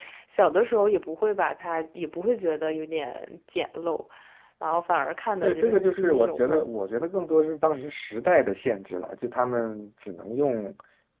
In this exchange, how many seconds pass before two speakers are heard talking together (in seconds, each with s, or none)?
5.4 s